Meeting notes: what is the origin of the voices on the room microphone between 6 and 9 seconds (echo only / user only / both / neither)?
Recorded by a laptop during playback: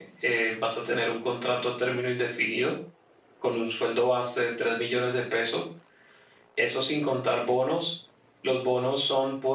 user only